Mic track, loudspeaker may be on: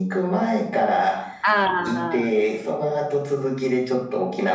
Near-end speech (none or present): present